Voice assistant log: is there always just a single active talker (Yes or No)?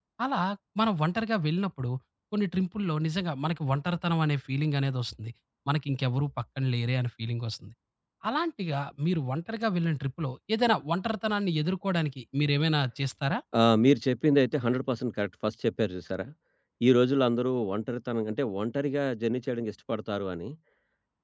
Yes